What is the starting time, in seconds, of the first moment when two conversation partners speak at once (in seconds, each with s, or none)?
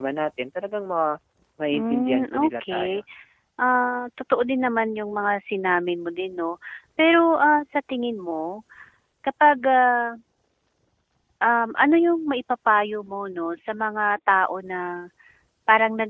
1.7 s